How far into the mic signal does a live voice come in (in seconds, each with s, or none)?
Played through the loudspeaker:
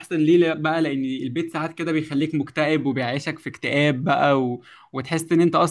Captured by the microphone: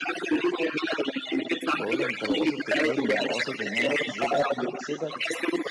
1.8 s